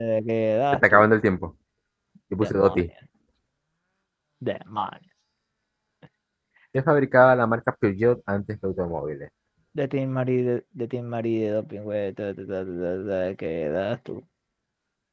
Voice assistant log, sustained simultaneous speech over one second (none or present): none